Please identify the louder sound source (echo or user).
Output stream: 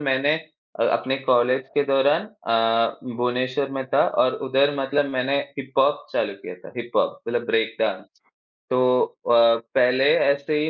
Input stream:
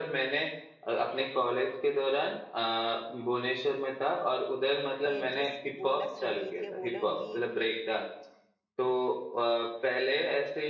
echo